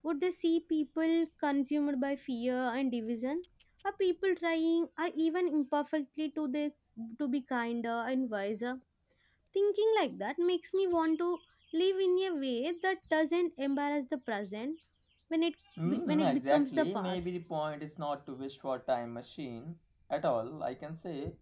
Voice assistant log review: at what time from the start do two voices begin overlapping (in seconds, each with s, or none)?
15.9 s